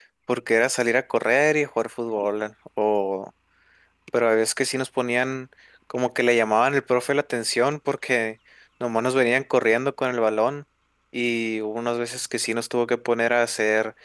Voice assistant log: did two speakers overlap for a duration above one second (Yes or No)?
No